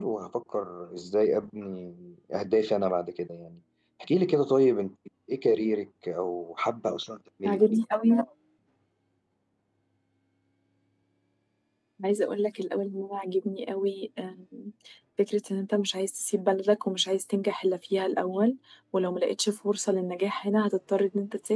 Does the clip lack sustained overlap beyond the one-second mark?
Yes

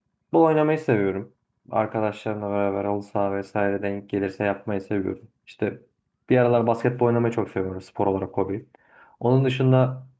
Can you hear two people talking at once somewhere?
No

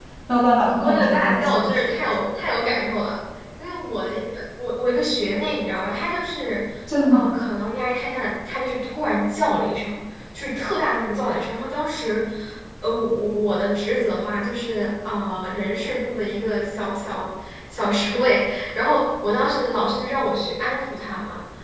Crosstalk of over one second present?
Yes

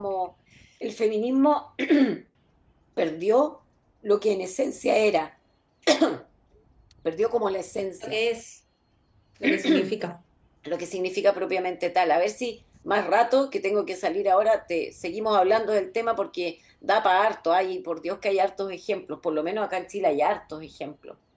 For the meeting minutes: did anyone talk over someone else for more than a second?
No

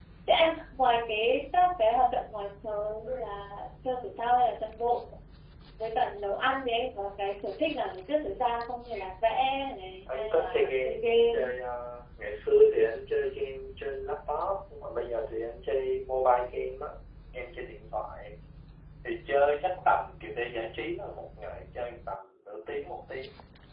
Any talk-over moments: Yes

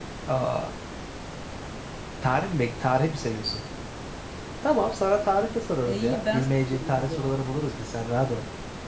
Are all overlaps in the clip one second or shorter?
No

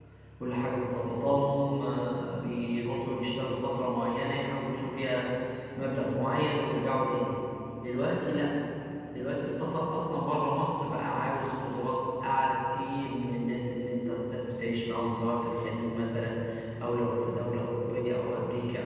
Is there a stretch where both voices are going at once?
No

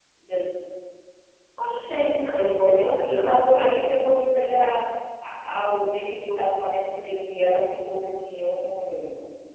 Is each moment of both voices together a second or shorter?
No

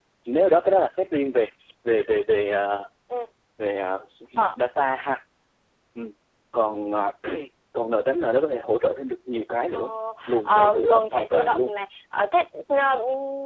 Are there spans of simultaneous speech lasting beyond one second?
Yes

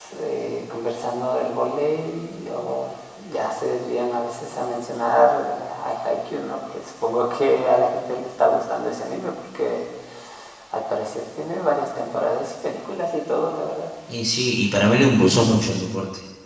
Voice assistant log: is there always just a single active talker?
Yes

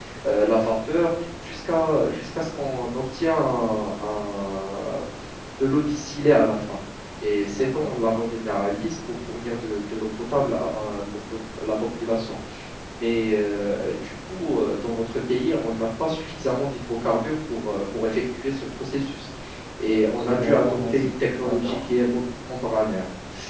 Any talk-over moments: Yes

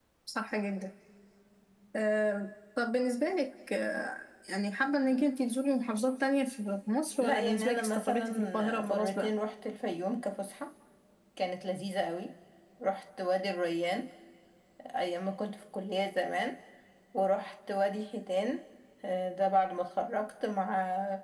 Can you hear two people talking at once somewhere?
Yes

